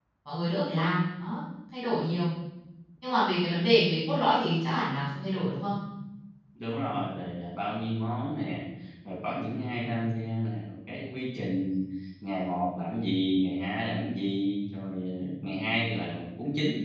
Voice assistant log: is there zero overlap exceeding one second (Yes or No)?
Yes